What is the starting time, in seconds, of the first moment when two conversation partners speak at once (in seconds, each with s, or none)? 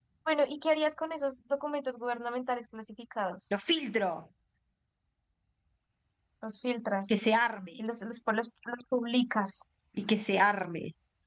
none